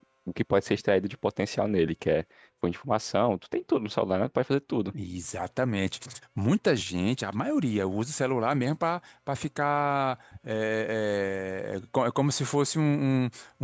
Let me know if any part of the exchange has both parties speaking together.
No

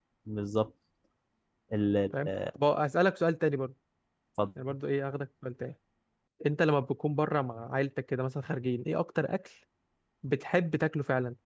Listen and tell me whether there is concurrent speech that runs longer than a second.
No

